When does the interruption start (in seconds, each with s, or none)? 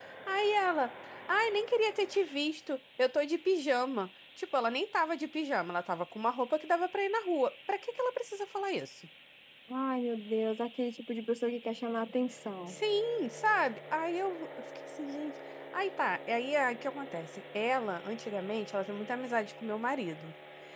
none